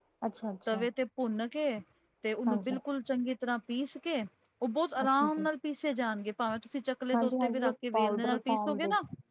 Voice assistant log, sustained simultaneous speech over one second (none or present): present